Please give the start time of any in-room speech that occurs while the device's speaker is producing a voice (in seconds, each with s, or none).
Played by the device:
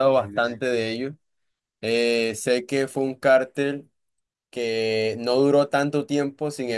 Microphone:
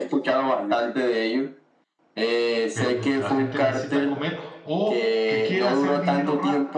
2.7 s